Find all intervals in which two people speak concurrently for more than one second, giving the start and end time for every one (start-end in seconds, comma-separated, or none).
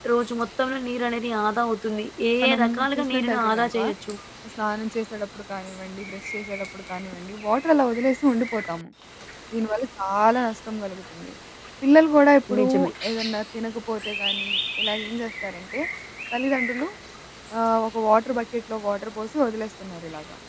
2.4-3.8